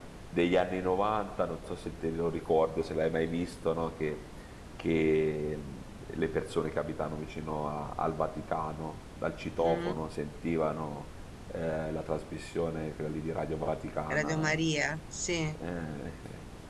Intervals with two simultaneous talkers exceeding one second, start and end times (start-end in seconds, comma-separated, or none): none